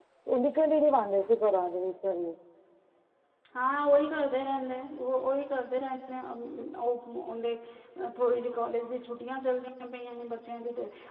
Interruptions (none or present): none